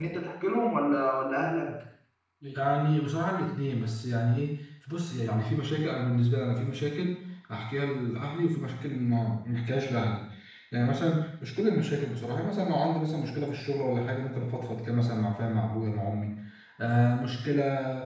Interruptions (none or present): none